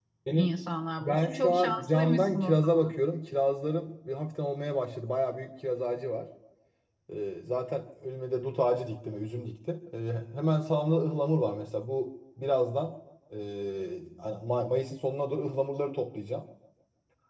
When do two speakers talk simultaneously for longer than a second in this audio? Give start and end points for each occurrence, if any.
1.0-2.8

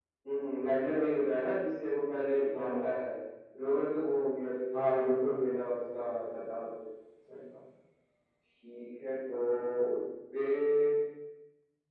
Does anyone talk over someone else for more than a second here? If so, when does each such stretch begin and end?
4.9-6.5

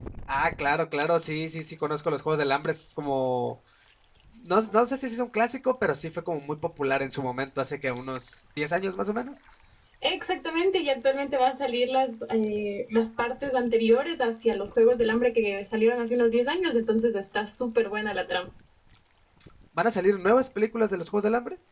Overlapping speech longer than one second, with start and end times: none

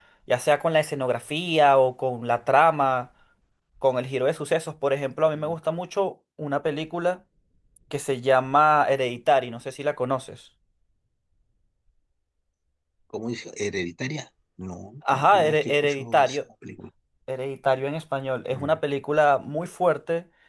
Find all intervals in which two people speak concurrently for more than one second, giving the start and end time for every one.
15.1-16.4

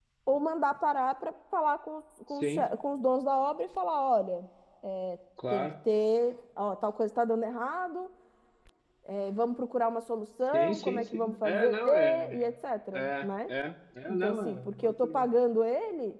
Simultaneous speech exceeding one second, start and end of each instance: 10.5-12.5, 14.1-15.3

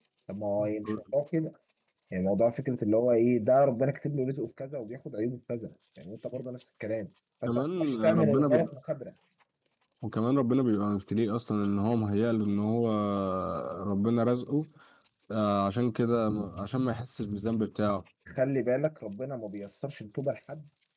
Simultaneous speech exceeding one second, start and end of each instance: 7.5-8.7

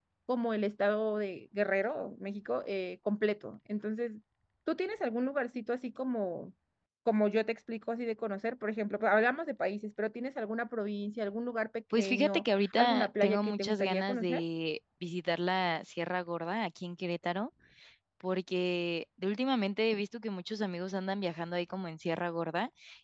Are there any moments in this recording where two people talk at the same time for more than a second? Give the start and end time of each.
11.9-14.4

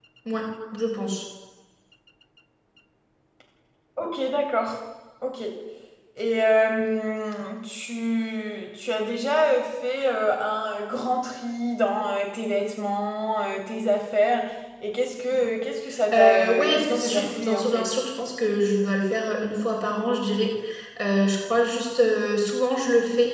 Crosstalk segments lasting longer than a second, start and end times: 16.1-17.9

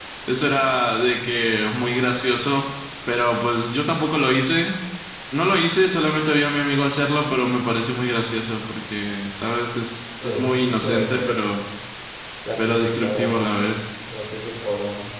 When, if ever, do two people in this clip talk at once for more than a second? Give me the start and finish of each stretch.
10.2-11.4, 12.6-13.8

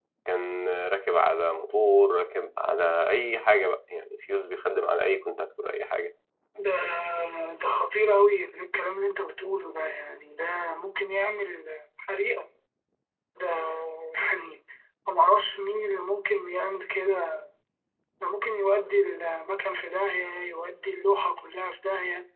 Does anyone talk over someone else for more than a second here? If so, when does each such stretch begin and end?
none

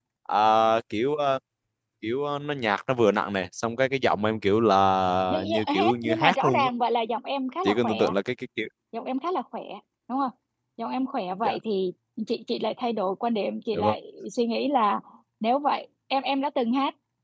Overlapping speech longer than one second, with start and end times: 5.3-6.7

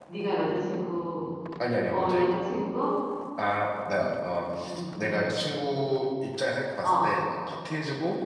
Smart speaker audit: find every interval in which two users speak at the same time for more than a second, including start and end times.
none

